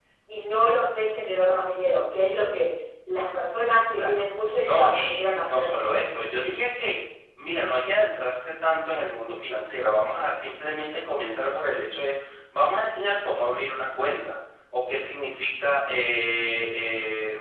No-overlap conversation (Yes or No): No